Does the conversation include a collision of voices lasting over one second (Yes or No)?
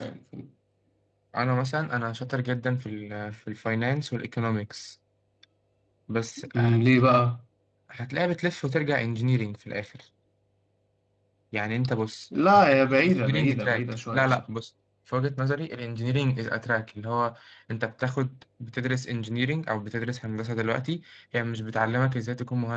Yes